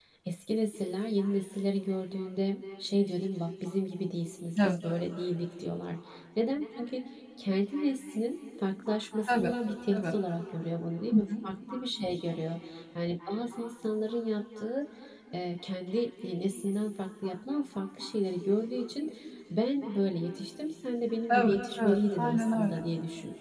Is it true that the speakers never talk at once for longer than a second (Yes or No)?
No